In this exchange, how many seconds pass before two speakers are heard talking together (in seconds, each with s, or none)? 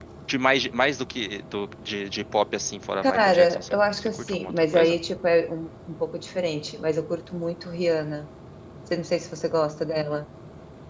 3.0 s